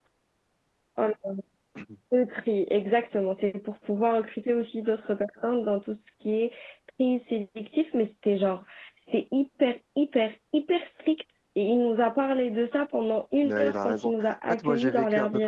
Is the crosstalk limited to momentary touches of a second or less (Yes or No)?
No